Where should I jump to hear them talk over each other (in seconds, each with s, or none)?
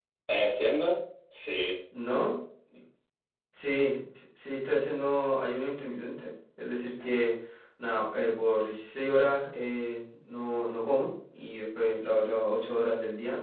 none